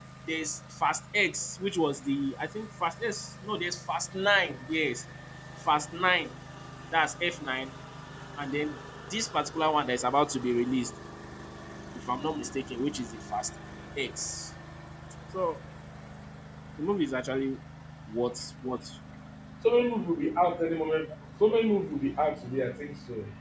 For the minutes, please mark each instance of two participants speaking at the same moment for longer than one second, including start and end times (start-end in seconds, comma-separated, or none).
none